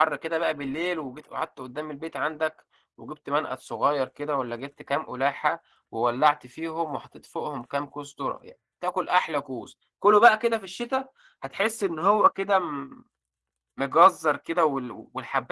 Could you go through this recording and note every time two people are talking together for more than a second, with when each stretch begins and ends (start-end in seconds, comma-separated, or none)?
none